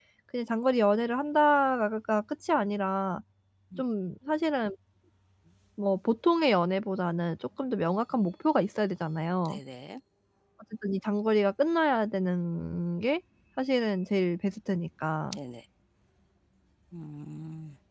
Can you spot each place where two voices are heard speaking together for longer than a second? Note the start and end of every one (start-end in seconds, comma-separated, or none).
none